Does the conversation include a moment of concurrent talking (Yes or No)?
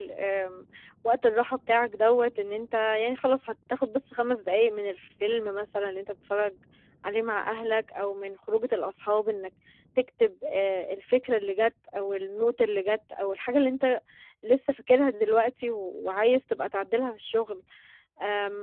No